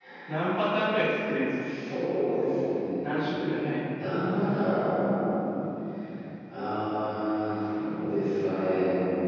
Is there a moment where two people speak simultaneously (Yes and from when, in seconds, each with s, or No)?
No